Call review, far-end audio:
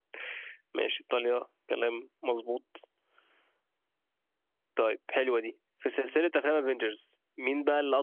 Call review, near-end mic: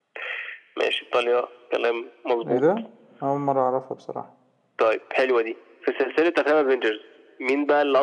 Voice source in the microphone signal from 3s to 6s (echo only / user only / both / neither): both